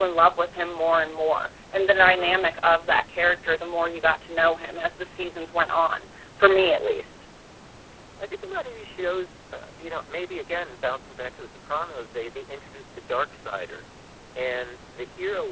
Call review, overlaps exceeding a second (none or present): none